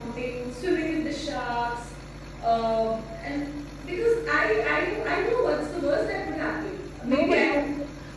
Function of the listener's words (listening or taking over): taking over